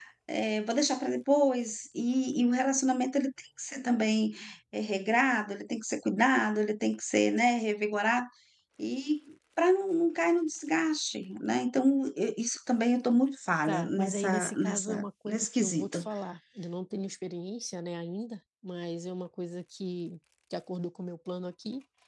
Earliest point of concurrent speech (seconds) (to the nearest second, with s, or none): 14 s